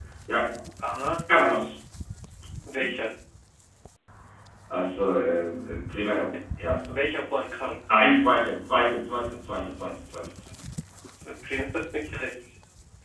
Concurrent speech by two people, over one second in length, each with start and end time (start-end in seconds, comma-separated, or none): none